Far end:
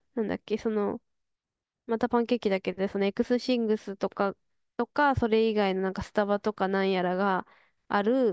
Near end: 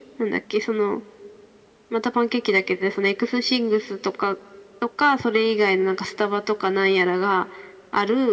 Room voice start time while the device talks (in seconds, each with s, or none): none